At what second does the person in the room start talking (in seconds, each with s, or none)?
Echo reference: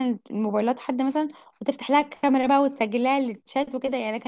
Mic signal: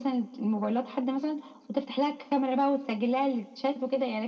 none